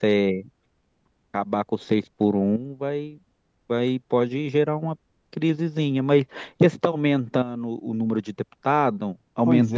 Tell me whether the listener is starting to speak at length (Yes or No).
Yes